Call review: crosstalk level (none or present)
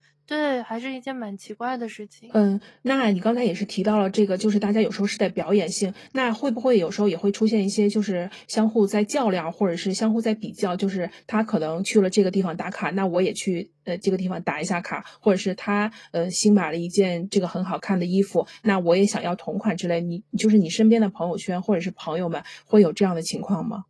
none